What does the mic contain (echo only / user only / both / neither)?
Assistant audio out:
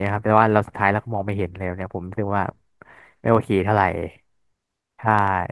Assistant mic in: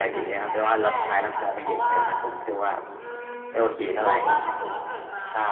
both